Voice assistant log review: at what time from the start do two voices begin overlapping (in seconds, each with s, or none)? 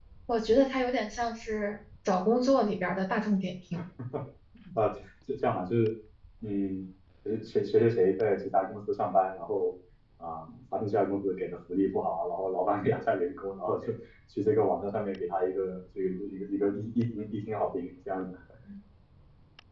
none